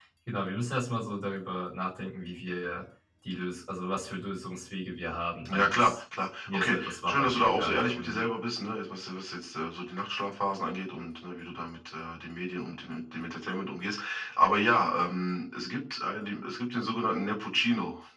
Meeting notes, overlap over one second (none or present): present